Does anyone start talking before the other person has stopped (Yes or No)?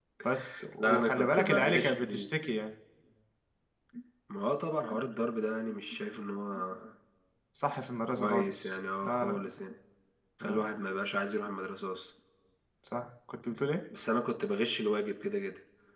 Yes